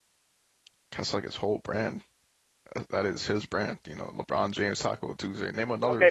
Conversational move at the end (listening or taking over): taking over